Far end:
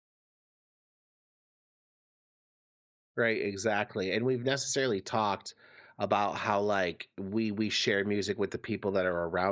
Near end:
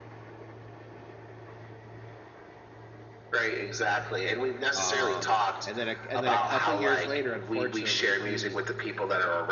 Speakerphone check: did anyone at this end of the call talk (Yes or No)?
Yes